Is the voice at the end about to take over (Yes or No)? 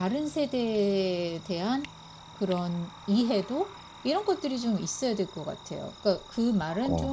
No